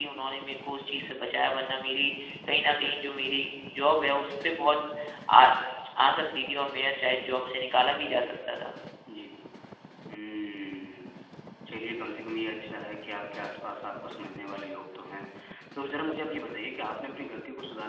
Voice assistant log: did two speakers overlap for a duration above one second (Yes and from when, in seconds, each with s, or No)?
No